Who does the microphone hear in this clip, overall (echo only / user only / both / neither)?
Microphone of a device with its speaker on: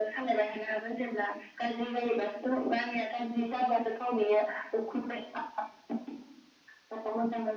echo only